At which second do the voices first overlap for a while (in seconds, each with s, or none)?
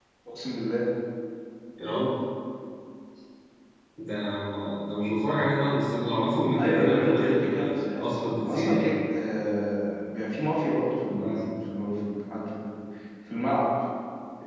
6.6 s